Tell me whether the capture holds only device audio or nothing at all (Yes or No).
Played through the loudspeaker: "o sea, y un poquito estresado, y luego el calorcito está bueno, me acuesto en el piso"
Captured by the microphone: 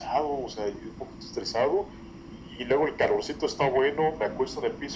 Yes